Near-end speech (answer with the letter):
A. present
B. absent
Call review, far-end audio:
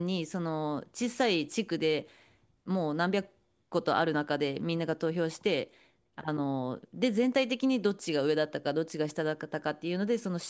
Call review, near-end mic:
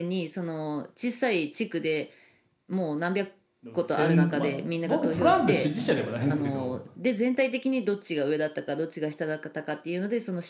A